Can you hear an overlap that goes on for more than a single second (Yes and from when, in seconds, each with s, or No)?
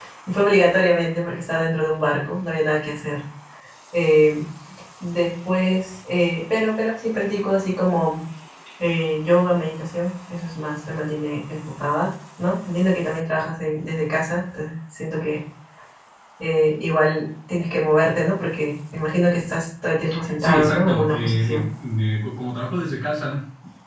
Yes, from 20.4 s